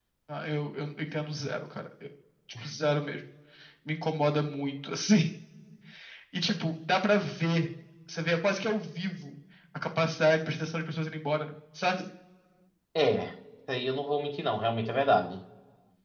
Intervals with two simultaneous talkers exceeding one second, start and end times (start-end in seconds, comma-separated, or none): none